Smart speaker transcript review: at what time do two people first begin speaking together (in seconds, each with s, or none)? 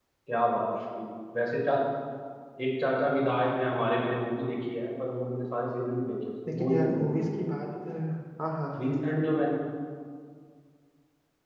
6.5 s